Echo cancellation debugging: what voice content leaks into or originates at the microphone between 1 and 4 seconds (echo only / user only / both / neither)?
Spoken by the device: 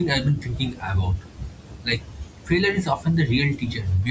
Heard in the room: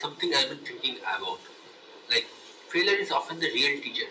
echo only